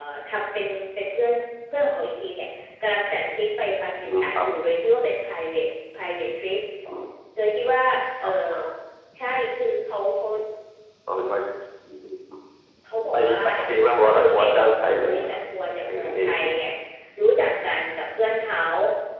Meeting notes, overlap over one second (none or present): present